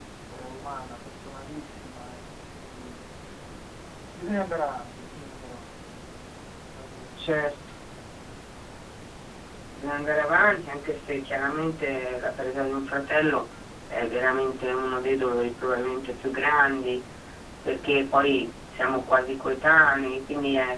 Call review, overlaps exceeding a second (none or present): none